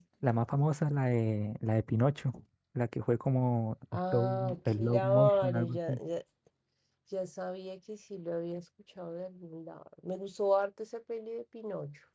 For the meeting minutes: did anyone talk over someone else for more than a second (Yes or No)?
Yes